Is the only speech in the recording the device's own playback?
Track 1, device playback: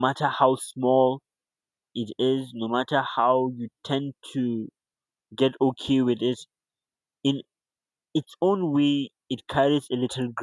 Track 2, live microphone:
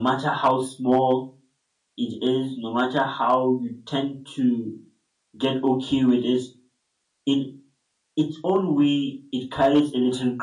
Yes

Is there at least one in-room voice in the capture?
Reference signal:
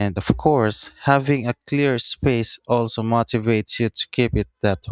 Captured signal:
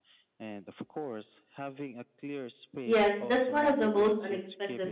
Yes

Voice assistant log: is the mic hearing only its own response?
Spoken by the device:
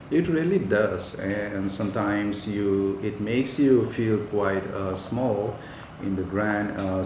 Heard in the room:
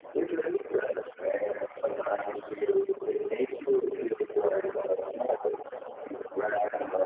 Yes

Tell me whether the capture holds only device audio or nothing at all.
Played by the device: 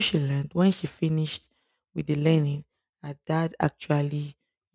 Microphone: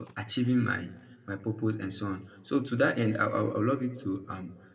No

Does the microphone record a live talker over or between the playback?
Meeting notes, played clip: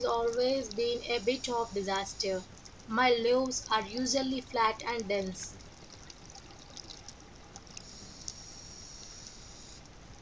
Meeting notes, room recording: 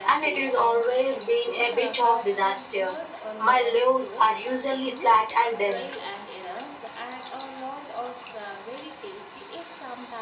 Yes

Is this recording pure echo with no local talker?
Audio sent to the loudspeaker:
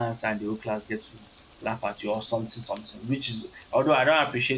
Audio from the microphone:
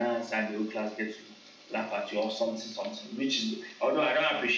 Yes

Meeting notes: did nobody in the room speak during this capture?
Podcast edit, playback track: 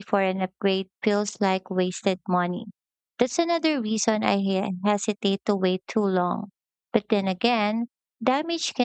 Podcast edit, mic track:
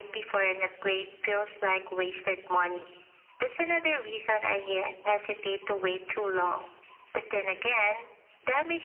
Yes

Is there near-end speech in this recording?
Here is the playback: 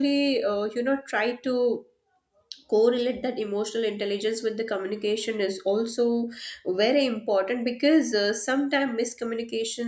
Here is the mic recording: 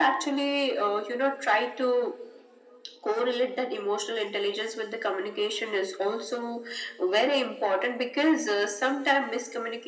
No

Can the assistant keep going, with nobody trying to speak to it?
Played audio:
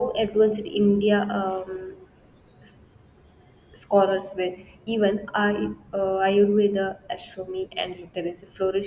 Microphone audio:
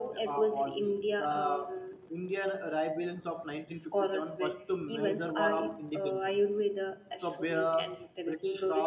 No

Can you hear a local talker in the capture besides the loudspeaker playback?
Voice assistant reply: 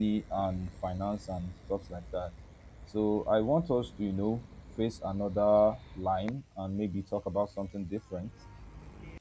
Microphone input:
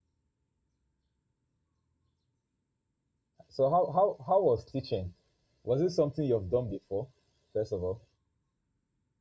Yes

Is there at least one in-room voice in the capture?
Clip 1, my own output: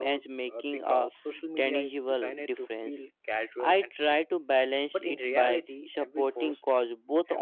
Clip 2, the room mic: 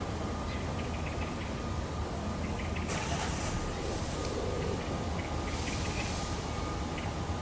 No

